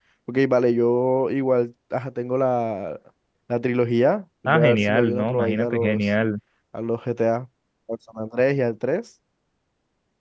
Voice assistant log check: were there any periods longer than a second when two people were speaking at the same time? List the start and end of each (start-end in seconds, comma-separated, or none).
4.5-6.1